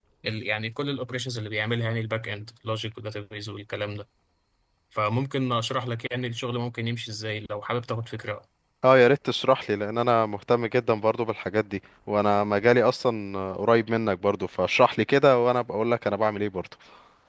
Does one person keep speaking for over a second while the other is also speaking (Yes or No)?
No